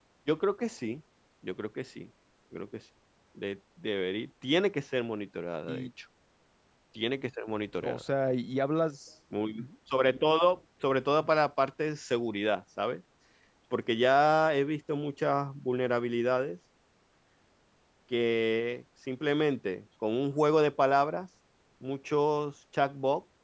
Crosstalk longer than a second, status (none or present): none